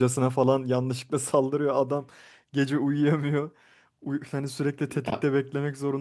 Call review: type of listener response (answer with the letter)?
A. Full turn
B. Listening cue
B